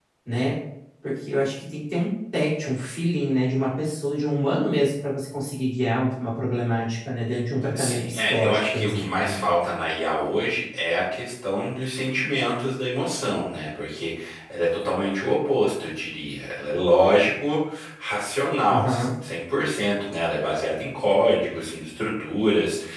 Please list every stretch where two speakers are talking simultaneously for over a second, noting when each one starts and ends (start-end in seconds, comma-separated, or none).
7.7-9.4